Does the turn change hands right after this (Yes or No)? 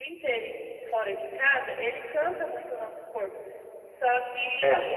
No